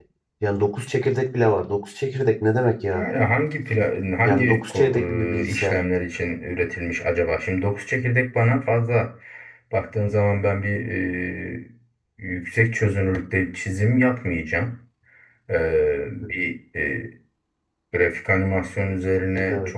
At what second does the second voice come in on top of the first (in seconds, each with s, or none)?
4.2 s